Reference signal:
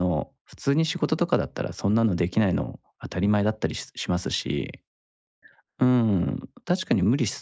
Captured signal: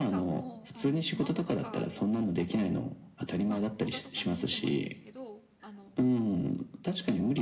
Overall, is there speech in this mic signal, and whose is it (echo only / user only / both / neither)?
both